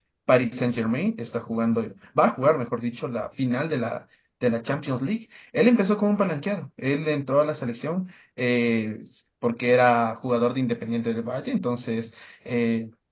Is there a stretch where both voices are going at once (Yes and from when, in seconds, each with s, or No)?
No